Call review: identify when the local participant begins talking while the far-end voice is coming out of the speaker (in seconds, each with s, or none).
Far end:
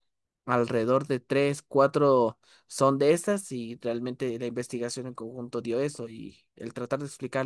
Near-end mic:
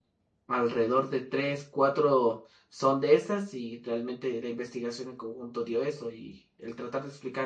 none